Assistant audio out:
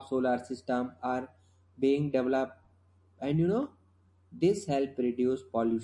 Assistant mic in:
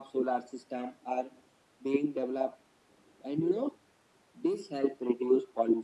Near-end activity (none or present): none